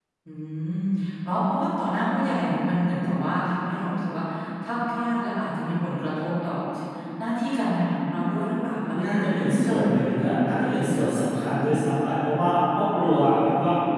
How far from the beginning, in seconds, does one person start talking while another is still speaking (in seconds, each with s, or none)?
8.9 s